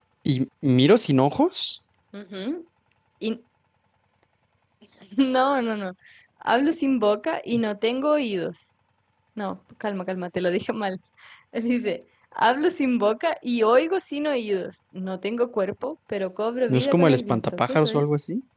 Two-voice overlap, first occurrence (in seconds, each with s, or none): 16.7 s